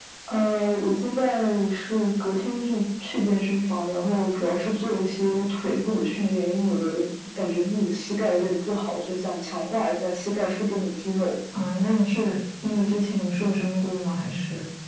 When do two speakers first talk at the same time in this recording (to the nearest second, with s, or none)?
none